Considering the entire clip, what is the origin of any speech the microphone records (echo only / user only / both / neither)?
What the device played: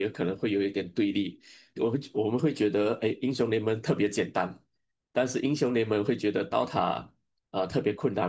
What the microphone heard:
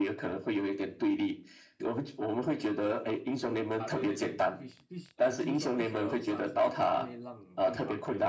both